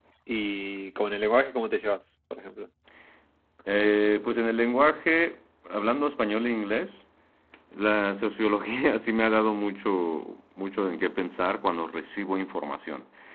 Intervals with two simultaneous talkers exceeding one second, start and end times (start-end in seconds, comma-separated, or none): none